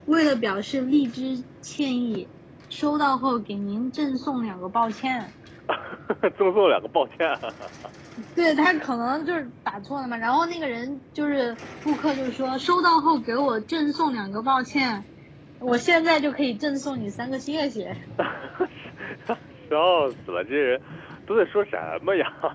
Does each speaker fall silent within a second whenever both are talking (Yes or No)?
Yes